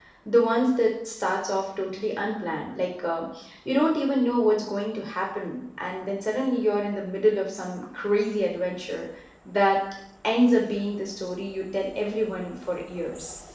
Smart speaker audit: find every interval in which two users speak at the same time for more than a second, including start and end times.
none

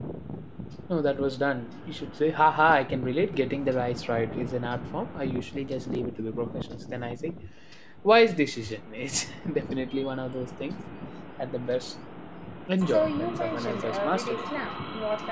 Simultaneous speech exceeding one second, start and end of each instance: 12.9-14.4

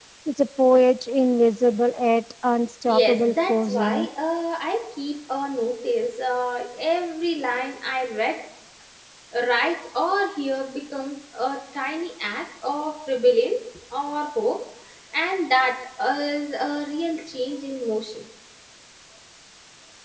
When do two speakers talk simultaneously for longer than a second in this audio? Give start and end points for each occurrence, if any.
2.9-4.1

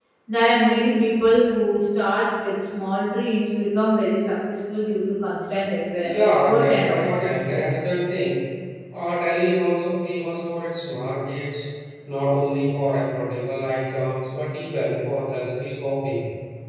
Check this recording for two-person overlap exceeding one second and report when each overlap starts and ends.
6.0-7.6

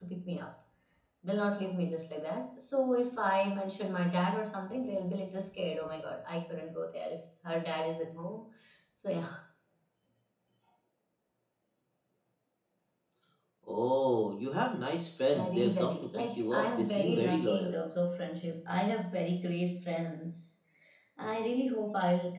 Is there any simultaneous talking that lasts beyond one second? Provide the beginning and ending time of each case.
15.3-17.8

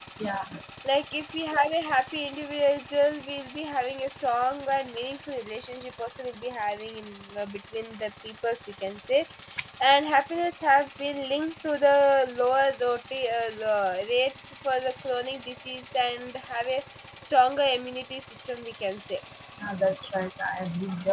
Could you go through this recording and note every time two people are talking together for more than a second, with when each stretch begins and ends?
none

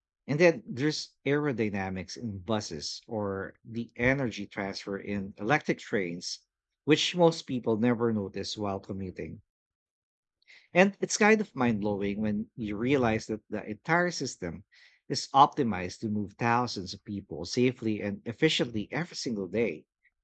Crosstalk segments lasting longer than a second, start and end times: none

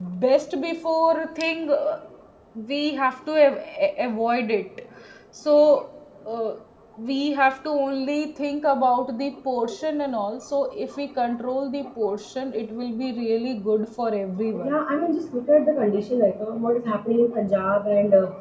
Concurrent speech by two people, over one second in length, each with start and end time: none

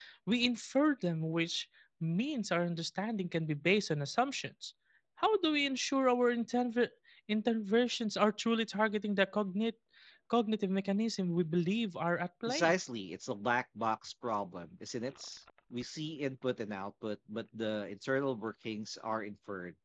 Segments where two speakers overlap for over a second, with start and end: none

